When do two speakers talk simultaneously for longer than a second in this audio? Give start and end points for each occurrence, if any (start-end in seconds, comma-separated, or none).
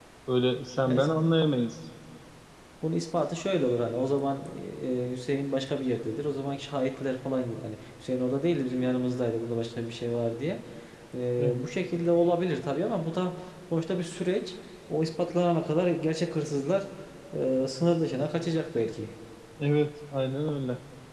none